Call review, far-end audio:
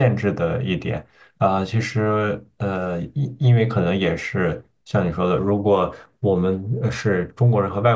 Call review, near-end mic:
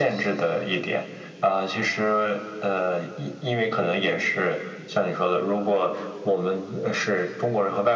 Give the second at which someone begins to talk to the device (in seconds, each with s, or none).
none